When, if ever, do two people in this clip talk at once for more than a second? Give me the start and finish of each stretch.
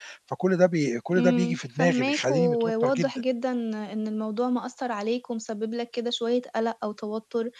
1.2-3.1

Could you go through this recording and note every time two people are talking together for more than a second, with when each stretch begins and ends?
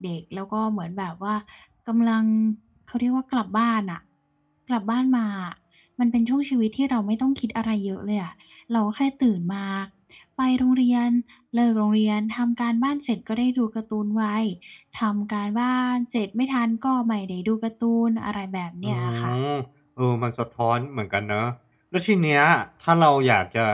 none

